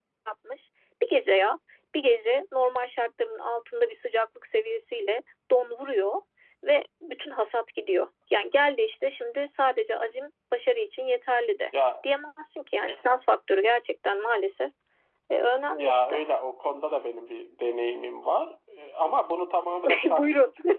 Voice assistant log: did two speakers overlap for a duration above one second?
No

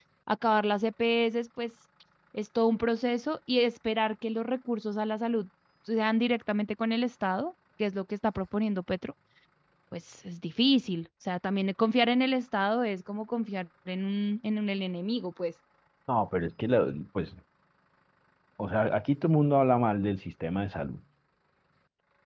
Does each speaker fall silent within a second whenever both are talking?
Yes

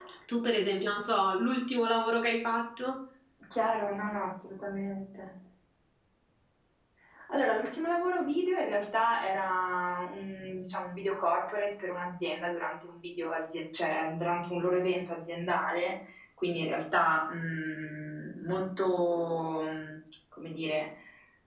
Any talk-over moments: No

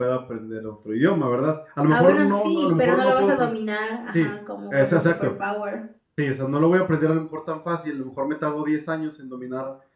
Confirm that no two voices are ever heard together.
No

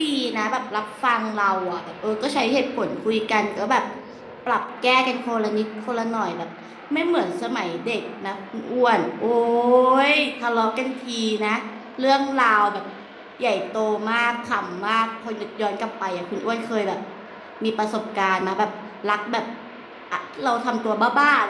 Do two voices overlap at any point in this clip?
No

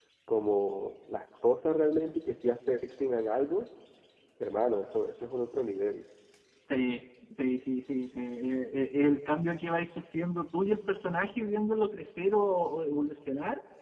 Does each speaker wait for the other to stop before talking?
Yes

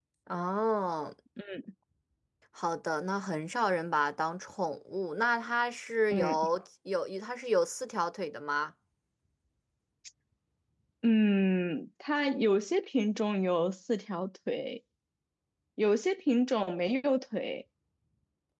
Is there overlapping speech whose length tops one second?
No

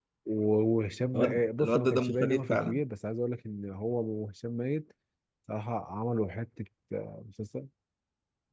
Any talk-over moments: Yes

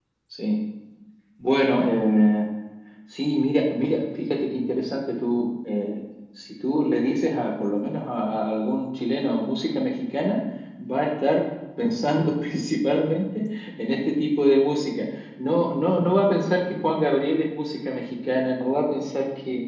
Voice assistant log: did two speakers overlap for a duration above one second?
No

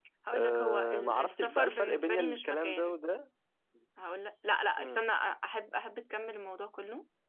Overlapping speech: Yes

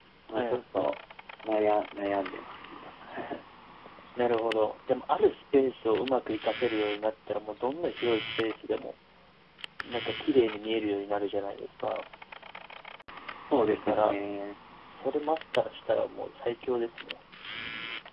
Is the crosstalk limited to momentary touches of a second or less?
Yes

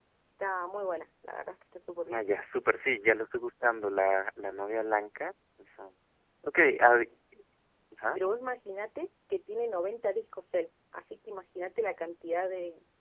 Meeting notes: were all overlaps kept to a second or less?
Yes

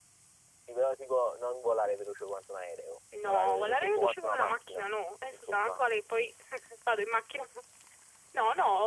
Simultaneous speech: Yes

